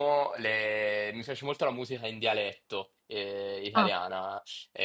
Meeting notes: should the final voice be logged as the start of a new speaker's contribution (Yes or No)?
No